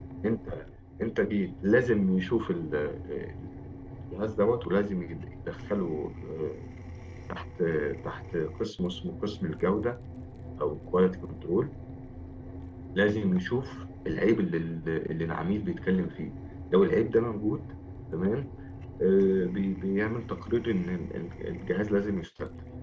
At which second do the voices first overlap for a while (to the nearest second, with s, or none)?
none